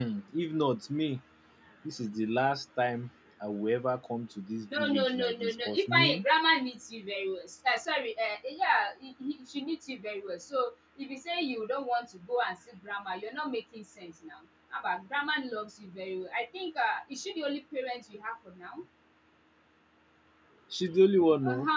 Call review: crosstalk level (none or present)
present